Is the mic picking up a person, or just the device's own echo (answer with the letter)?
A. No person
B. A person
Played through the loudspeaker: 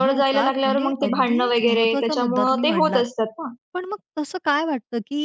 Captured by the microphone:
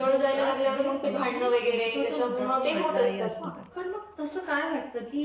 B